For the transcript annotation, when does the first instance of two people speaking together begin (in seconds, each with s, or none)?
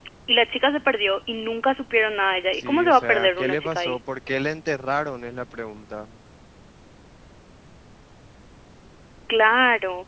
2.5 s